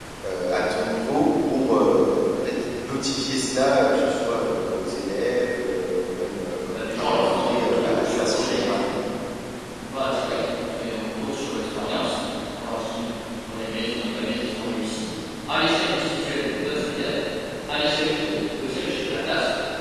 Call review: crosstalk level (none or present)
present